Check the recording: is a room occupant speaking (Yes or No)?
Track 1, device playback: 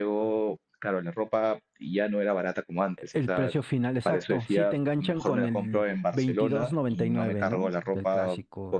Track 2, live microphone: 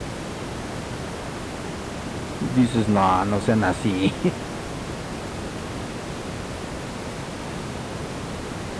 Yes